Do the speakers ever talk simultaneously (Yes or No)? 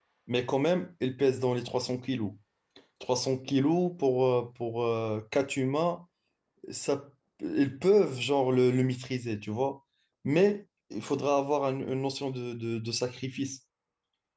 No